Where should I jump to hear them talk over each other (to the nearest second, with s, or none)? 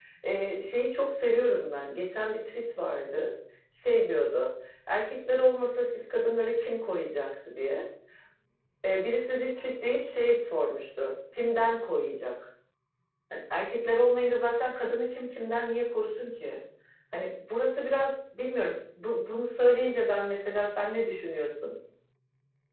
none